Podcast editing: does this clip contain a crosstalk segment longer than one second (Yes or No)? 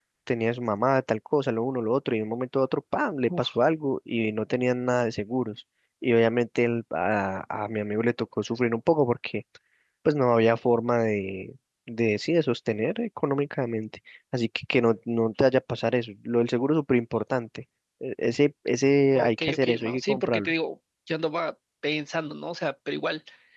Yes